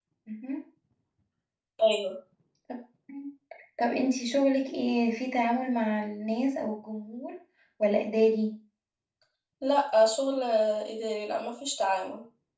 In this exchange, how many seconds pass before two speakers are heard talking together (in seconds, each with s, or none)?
none